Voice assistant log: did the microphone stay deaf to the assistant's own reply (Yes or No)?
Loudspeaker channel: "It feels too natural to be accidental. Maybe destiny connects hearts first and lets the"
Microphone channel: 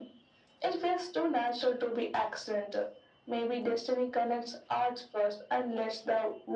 No